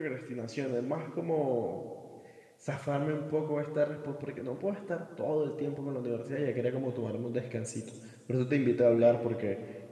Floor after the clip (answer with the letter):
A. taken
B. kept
B